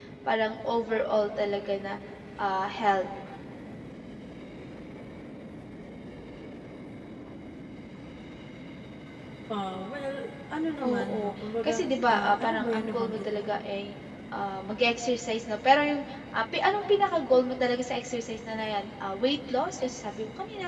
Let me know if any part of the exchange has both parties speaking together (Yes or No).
Yes